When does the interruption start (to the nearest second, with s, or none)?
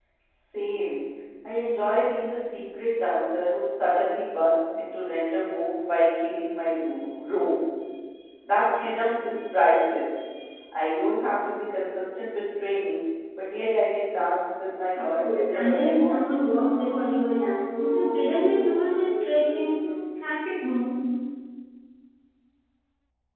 15 s